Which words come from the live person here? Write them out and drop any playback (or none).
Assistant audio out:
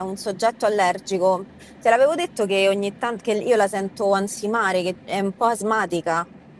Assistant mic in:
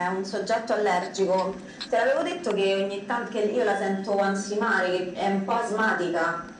none